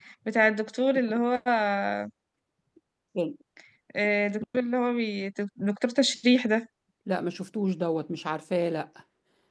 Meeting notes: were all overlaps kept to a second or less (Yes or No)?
Yes